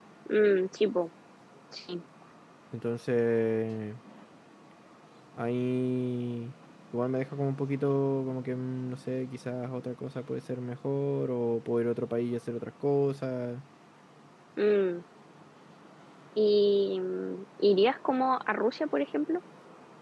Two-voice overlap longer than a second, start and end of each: none

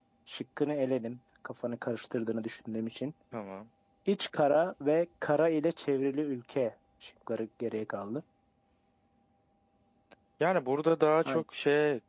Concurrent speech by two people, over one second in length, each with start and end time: none

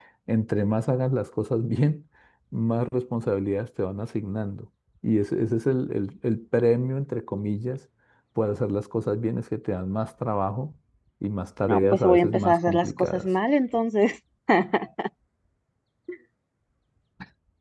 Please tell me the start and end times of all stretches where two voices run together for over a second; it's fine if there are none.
11.7-13.3

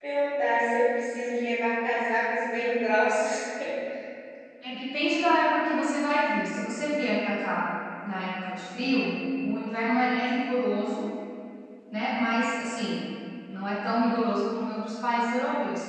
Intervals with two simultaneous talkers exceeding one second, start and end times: none

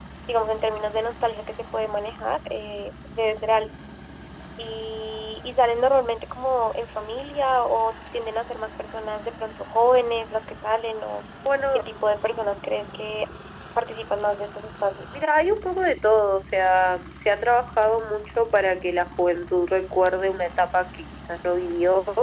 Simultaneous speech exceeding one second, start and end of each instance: none

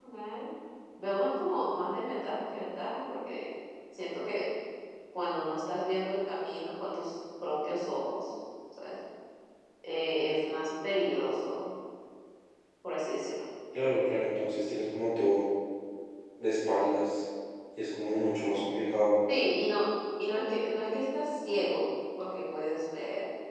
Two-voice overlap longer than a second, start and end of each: none

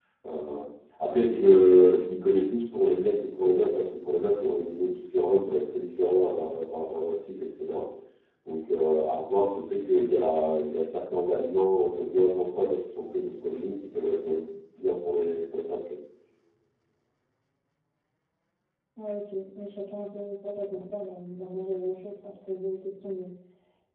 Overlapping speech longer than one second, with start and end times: none

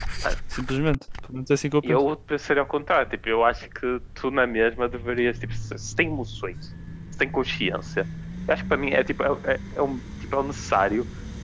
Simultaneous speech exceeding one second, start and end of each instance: none

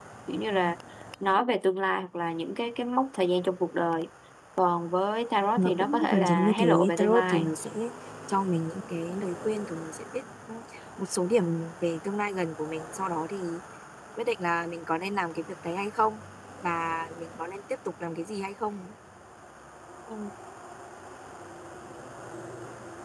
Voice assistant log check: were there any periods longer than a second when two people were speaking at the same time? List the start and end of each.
5.6-7.5

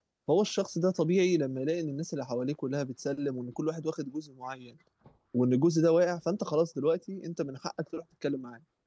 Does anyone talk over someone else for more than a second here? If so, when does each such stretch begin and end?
none

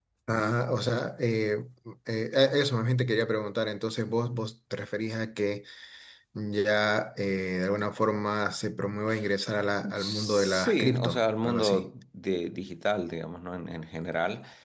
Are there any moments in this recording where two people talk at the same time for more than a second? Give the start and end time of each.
9.9-11.9

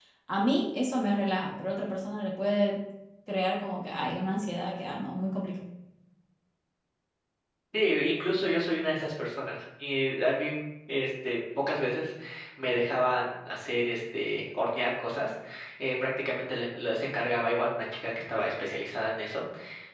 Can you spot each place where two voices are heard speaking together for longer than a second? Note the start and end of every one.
none

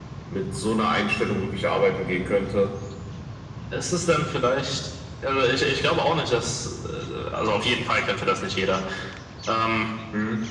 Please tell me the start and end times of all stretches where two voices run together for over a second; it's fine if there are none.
none

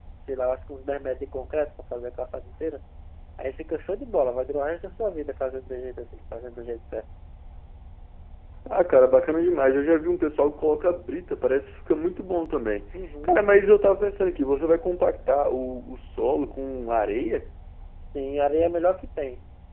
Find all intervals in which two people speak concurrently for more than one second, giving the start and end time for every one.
none

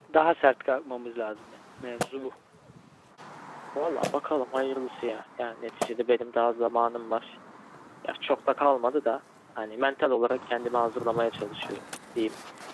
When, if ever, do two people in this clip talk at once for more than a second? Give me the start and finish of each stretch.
none

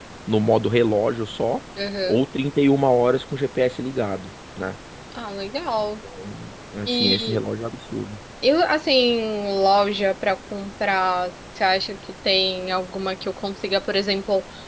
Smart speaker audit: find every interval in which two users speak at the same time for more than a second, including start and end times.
none

